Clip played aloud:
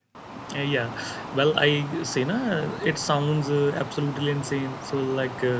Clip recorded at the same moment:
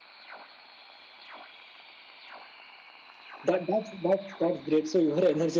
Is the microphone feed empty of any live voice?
No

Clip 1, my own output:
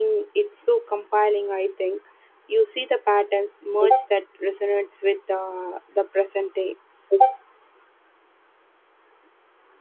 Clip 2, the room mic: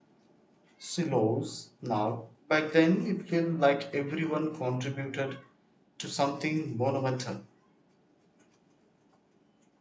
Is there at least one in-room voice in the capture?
Yes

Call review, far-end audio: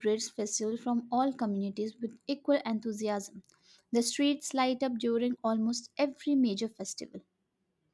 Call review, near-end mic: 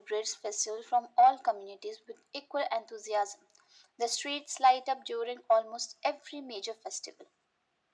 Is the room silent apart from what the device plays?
Yes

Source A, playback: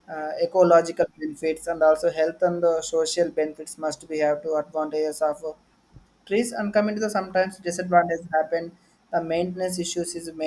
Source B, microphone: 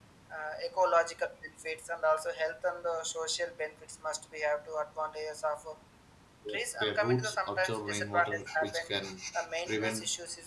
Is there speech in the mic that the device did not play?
Yes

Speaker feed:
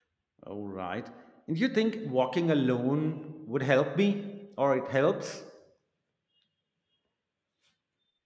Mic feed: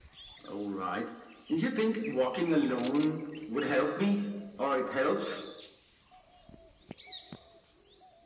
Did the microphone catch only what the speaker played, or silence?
Yes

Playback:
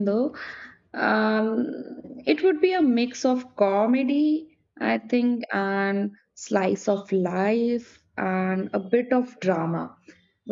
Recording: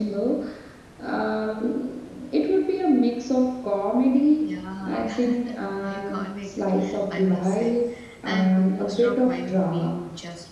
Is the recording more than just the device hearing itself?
Yes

